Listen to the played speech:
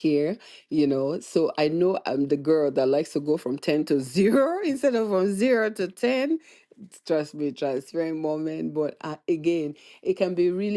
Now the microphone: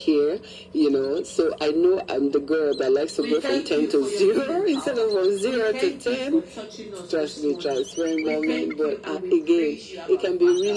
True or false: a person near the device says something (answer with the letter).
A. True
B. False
A